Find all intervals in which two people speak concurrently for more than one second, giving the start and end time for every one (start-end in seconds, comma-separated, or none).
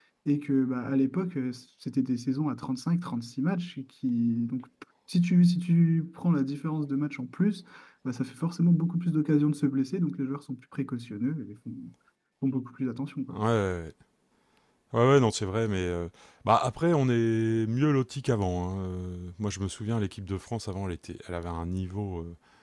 none